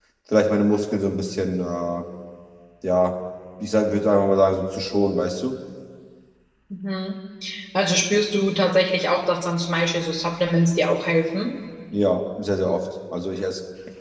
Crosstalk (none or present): none